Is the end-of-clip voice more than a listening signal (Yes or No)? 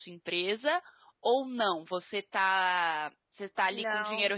No